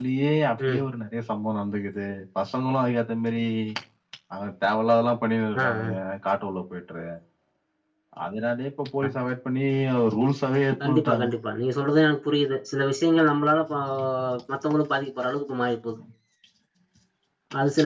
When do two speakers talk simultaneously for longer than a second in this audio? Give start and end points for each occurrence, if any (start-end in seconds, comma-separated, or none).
none